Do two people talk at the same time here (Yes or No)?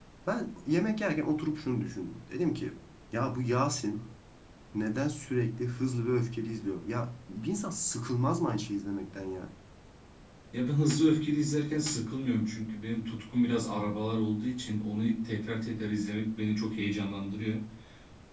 No